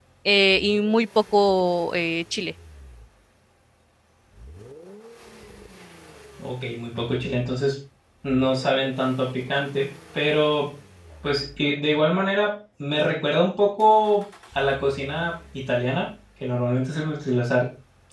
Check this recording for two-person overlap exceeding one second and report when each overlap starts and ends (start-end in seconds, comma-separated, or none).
none